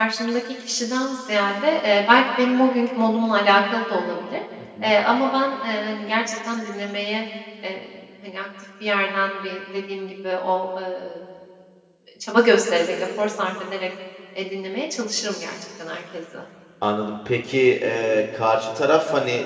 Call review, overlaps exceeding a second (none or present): none